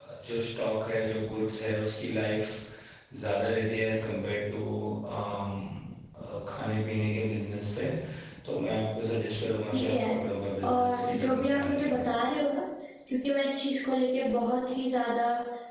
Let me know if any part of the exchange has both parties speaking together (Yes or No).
Yes